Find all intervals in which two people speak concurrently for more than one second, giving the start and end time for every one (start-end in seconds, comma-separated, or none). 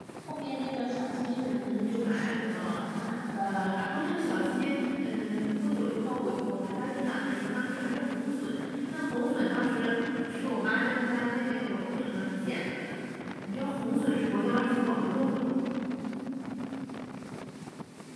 1.6-2.8